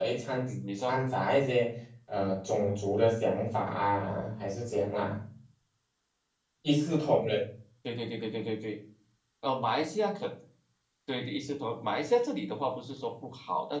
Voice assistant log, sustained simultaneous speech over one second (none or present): none